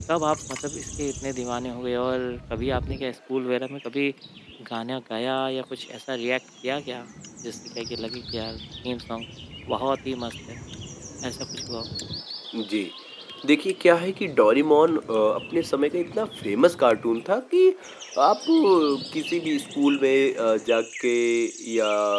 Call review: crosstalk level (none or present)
none